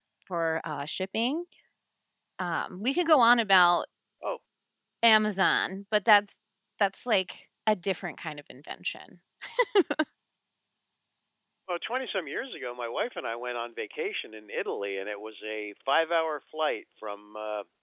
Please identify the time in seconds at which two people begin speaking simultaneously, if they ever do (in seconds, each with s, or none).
none